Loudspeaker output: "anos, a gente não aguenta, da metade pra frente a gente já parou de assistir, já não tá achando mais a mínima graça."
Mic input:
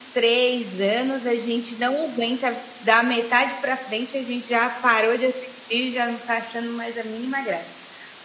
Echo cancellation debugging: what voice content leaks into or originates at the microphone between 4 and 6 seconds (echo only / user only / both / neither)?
echo only